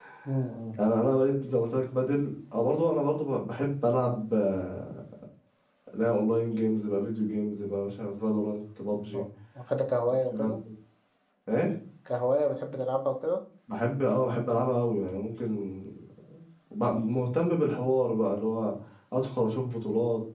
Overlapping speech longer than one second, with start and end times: none

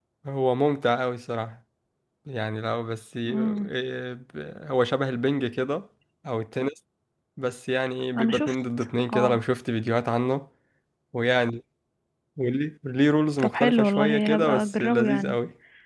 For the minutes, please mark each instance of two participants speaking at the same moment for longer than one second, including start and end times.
13.4-15.4

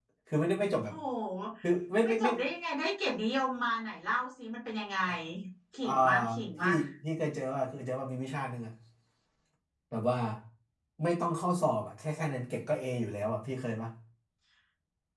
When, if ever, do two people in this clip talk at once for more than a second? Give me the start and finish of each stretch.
none

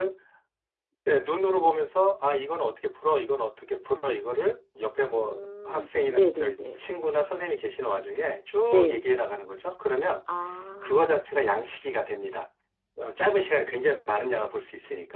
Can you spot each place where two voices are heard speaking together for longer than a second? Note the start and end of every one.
5.1-6.8

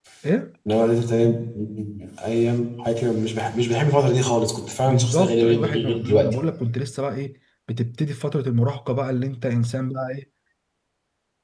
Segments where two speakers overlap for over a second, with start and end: 4.8-6.3

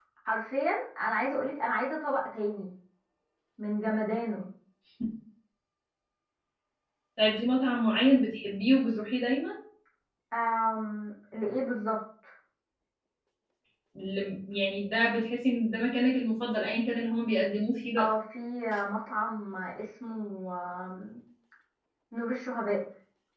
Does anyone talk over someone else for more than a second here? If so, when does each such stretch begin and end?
none

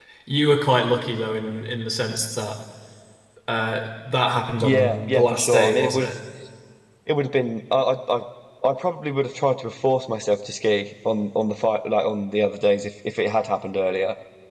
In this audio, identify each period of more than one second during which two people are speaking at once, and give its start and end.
4.6-6.1

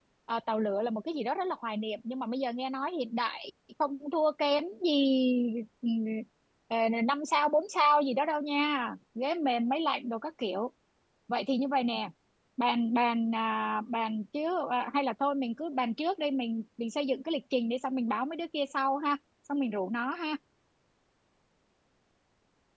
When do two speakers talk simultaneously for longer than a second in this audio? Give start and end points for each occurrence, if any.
none

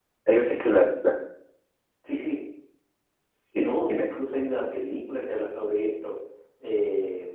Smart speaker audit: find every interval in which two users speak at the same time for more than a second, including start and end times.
none

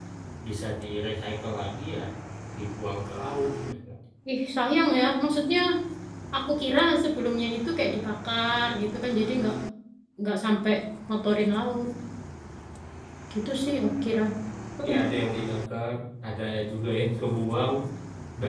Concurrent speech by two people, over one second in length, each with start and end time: none

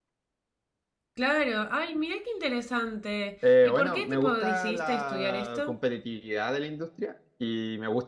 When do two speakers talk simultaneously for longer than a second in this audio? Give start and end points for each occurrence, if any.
3.6-5.8

